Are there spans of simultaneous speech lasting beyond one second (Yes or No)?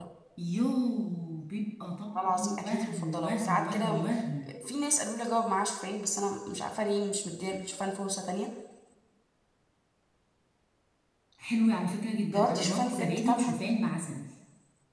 Yes